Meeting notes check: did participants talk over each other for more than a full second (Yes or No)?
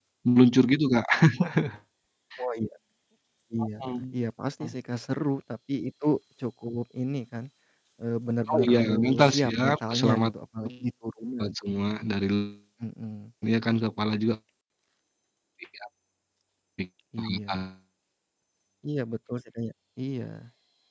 Yes